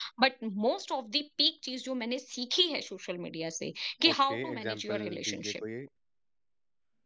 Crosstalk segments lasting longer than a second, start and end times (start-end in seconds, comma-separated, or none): 4.1-5.6